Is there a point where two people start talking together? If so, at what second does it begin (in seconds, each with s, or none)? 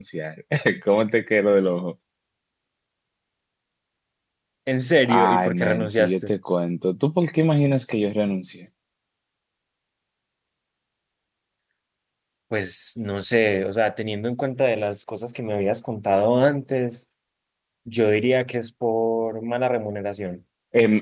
5.1 s